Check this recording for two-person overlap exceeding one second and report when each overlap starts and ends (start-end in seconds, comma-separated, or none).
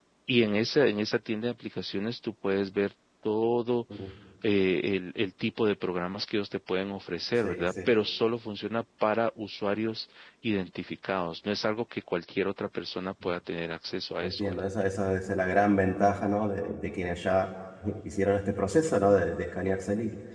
none